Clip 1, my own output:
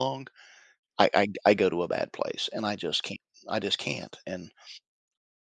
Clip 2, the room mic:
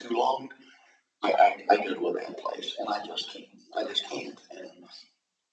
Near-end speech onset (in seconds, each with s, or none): none